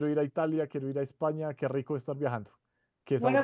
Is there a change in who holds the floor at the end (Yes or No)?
Yes